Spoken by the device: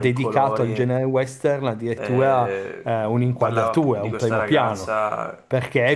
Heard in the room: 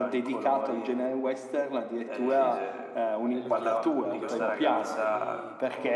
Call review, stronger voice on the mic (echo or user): echo